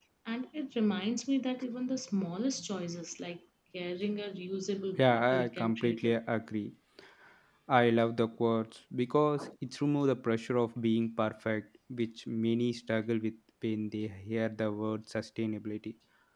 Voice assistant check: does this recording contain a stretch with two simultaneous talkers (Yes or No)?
Yes